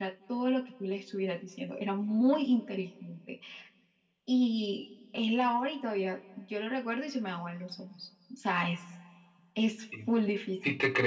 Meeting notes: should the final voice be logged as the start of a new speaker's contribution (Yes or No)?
Yes